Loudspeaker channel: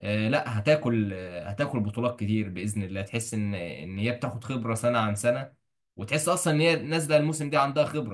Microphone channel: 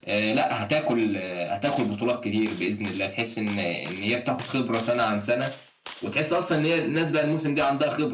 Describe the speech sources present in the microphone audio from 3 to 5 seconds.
echo only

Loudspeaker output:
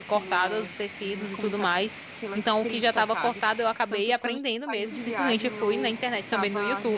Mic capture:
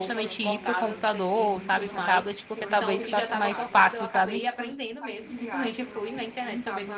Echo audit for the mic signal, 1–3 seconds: both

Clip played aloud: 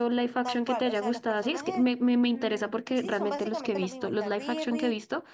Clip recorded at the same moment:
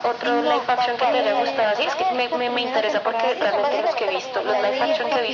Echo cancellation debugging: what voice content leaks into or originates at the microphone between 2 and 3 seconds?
both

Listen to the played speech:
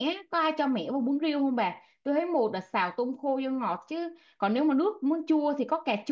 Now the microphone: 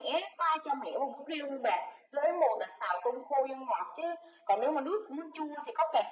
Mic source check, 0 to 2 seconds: echo only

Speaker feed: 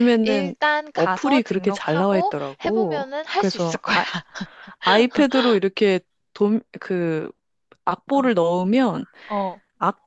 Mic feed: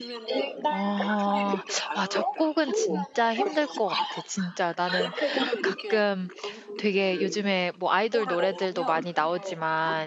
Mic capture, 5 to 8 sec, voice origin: both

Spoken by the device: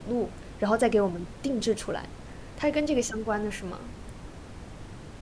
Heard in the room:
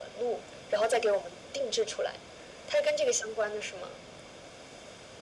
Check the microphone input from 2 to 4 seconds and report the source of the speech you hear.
echo only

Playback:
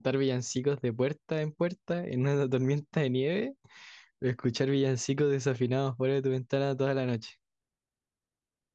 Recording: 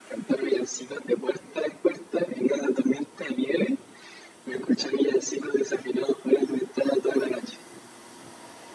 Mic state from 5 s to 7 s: echo only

